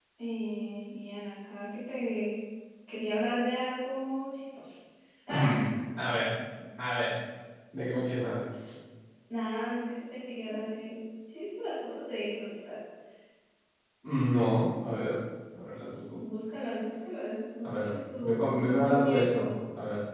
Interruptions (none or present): present